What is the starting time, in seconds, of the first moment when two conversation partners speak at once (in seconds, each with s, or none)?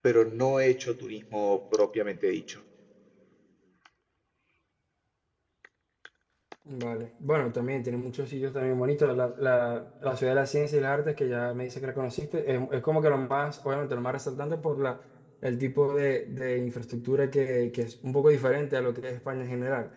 none